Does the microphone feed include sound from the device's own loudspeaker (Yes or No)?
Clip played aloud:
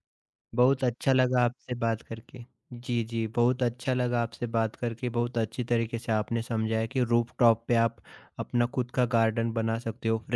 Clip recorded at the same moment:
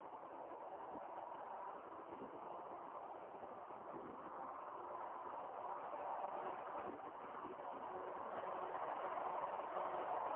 No